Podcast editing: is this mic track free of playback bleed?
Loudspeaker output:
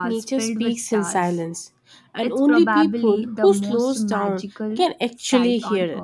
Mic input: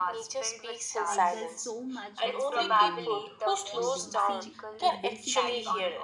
No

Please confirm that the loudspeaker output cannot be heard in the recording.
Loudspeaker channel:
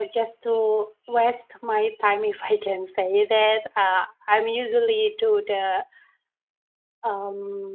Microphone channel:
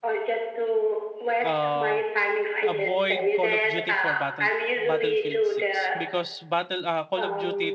No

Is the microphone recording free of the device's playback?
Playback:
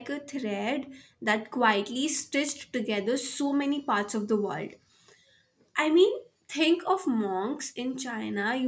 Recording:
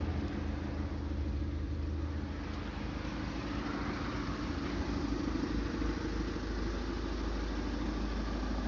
Yes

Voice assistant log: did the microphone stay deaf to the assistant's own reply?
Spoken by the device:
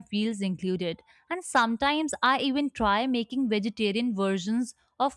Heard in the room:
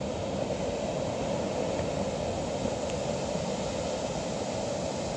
Yes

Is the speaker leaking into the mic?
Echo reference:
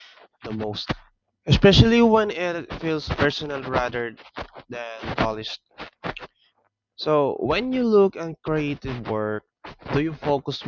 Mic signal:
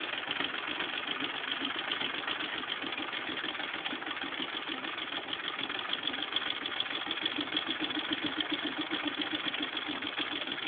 No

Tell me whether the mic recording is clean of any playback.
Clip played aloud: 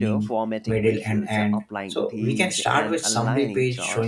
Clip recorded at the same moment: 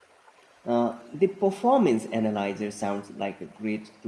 Yes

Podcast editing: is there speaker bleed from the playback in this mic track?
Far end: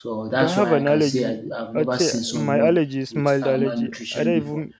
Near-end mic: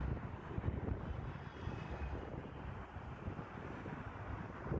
No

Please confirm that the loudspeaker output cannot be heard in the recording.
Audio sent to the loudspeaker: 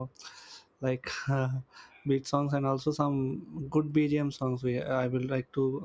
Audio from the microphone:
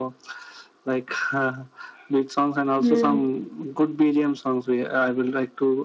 No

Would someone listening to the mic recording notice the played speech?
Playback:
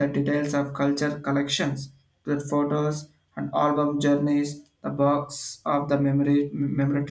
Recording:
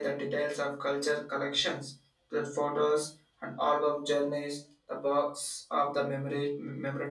Yes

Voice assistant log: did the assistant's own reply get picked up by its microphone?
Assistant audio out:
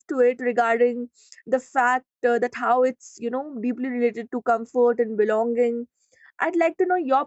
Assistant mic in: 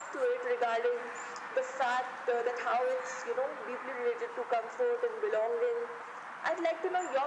Yes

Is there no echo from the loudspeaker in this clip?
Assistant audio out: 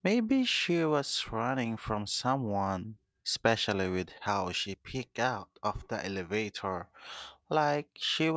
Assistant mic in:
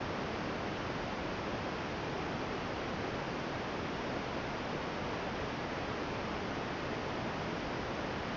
Yes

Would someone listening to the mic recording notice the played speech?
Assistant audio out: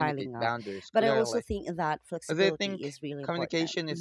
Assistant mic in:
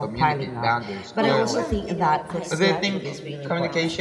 Yes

